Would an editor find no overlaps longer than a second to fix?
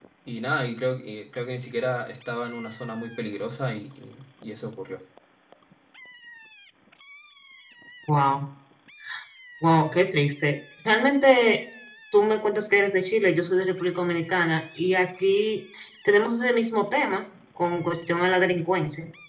Yes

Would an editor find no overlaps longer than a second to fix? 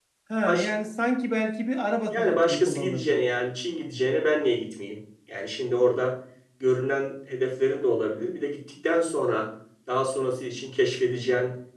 No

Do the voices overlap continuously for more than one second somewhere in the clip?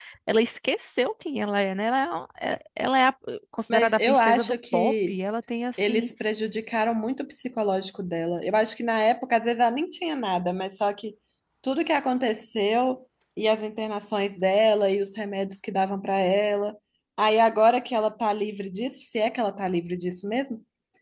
Yes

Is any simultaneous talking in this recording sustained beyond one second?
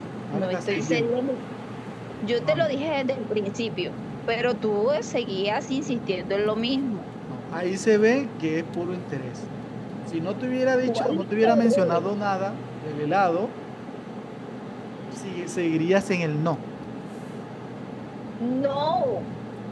Yes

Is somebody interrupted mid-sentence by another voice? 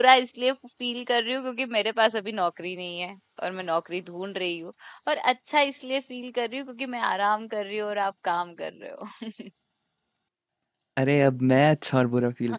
No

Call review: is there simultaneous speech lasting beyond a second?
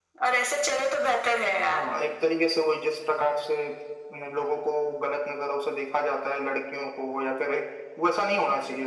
No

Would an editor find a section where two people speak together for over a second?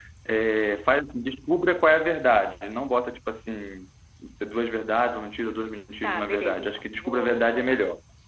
Yes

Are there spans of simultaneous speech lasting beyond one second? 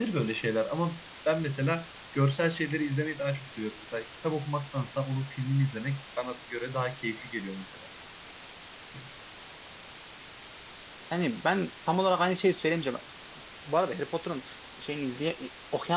No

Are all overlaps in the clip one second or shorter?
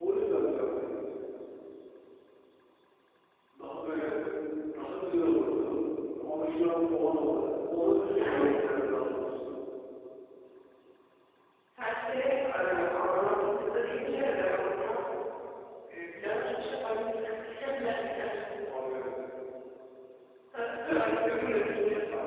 Yes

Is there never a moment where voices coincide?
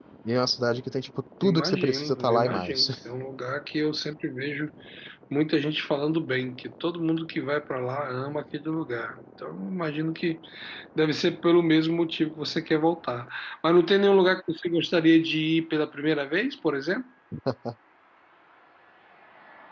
No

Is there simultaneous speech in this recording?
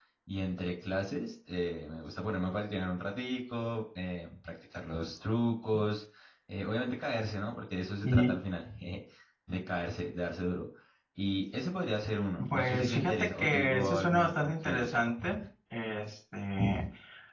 Yes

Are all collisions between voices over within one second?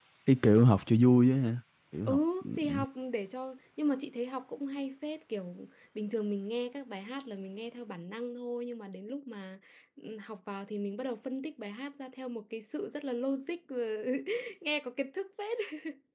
Yes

